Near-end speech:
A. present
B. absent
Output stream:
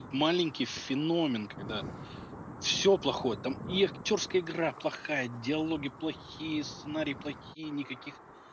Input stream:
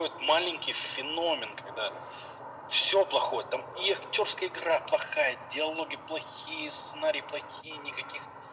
B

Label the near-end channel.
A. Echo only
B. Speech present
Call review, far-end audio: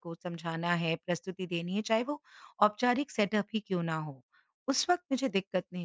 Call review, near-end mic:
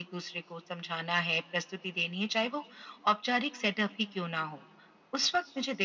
A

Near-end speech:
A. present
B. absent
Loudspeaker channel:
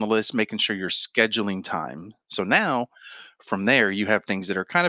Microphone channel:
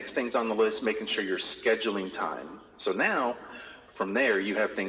B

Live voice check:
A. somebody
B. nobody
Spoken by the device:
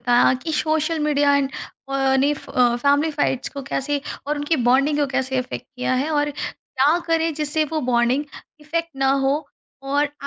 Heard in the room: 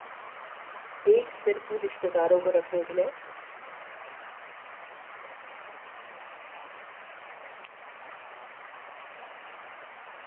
A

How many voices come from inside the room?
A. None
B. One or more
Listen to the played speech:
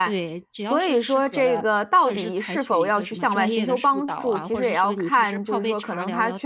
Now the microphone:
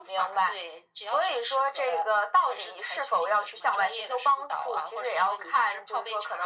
A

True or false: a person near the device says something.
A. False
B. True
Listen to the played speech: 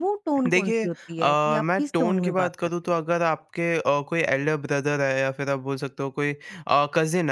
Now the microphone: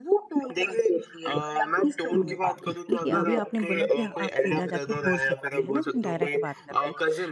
B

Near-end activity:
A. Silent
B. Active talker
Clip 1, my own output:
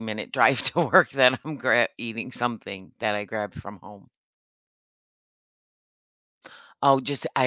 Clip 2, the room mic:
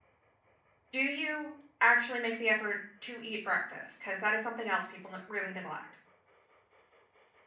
B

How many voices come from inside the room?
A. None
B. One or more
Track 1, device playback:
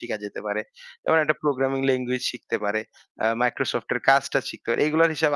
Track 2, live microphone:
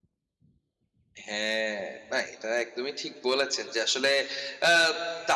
B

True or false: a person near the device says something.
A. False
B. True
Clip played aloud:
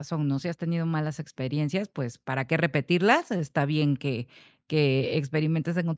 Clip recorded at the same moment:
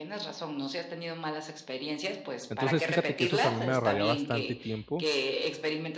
B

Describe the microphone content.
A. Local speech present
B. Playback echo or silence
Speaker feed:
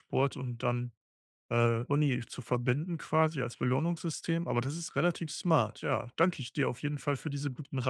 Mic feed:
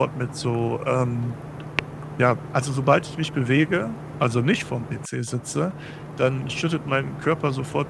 A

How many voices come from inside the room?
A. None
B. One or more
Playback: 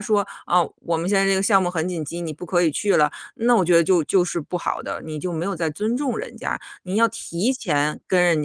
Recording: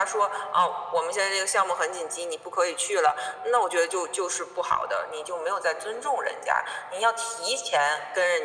A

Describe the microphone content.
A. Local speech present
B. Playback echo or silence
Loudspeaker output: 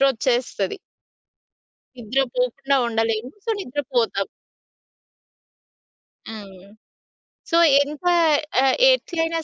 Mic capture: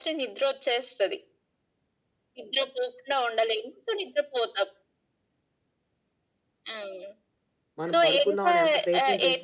A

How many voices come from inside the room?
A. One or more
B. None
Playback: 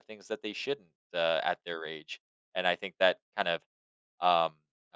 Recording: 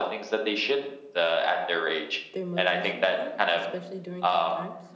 A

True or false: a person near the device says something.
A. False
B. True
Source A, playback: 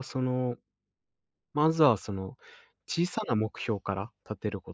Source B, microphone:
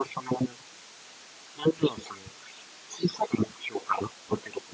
A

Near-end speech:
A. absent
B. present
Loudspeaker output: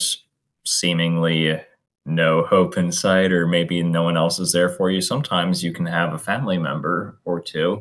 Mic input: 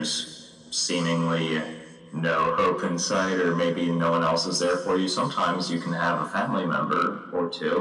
A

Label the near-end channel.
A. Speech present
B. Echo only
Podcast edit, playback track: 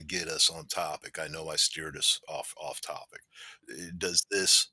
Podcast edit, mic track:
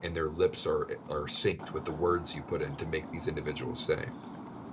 A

